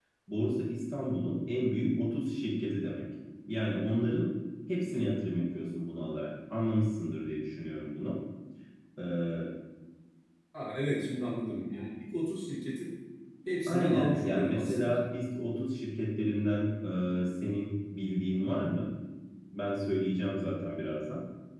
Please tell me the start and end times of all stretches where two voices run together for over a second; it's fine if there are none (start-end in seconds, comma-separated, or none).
13.7-15.0